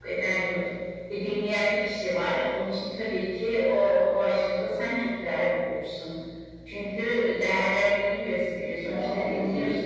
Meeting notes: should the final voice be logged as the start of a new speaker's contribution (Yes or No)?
Yes